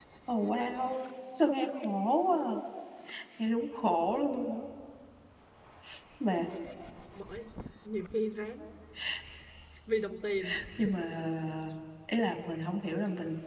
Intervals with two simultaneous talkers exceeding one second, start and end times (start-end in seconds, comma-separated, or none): none